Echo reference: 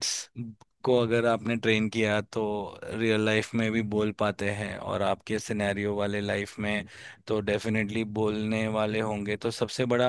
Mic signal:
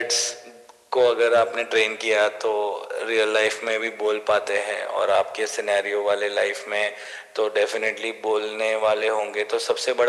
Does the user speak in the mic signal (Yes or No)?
No